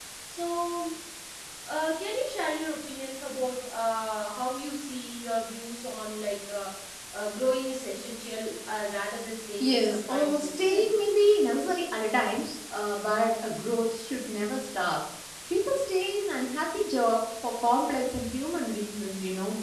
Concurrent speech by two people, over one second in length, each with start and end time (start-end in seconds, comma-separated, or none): 9.6-10.9